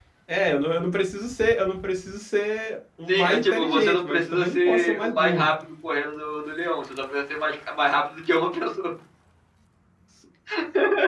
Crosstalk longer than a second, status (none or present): present